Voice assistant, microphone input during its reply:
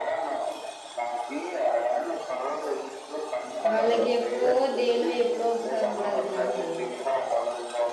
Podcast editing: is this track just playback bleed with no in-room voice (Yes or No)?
No